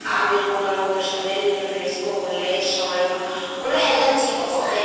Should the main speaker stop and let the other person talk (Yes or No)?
Yes